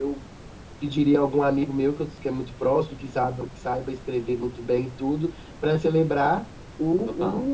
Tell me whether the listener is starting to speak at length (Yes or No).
No